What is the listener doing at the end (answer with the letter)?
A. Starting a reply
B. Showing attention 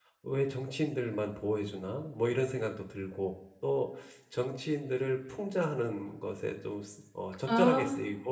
B